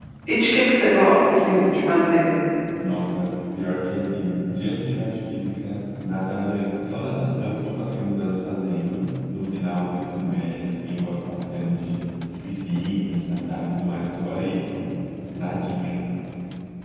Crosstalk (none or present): none